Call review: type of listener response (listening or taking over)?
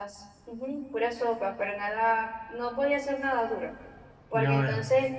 listening